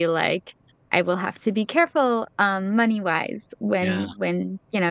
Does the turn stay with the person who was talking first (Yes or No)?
Yes